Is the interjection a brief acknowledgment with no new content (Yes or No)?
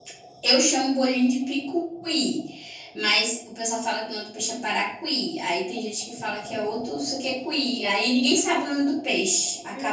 No